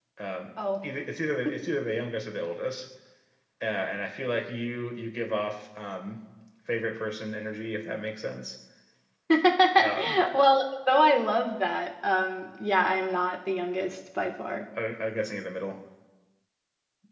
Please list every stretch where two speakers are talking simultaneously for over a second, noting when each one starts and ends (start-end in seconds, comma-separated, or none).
none